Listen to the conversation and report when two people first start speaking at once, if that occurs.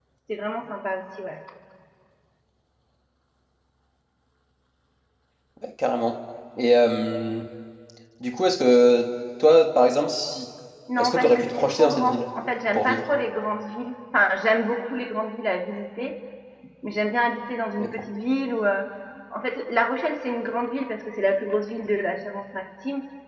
11 s

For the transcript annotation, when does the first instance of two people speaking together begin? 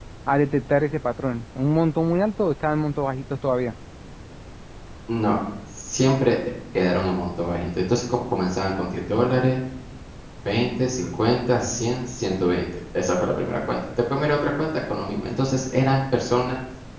none

